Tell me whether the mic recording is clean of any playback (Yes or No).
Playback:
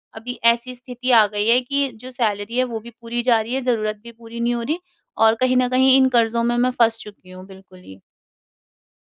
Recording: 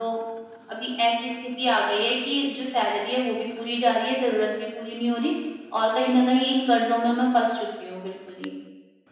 No